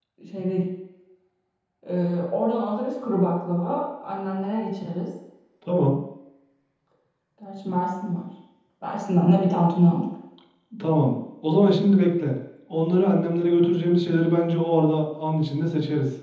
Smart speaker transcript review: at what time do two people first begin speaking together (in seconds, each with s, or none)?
none